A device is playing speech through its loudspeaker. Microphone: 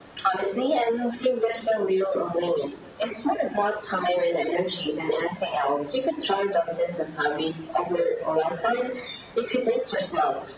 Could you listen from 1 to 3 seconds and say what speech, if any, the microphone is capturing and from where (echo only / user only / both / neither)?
echo only